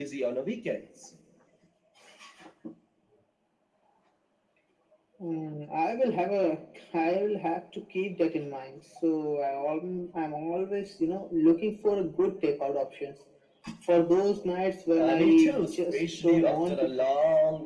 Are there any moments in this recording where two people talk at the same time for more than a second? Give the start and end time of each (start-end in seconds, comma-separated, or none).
14.9-16.9